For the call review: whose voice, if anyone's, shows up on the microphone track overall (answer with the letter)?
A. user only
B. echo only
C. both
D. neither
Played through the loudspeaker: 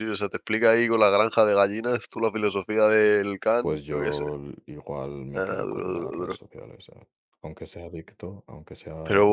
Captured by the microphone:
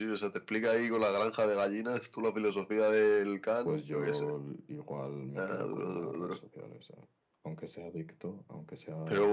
B